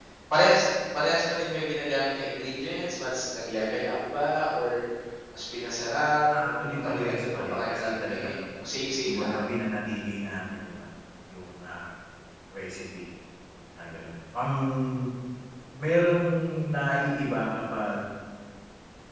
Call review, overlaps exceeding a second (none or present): present